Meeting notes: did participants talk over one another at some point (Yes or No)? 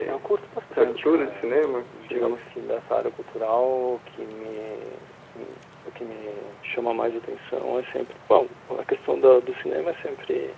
Yes